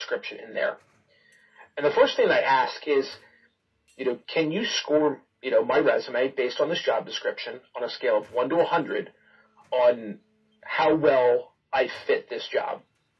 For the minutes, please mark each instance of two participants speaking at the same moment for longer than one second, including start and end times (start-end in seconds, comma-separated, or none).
none